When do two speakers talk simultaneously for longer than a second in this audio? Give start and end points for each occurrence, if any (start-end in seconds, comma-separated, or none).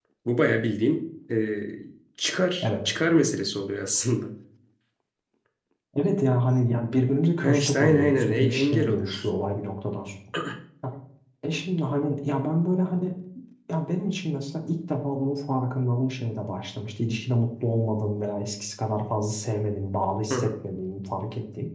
7.4-9.3